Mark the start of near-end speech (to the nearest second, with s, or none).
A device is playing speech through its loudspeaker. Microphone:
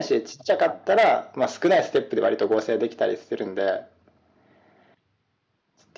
none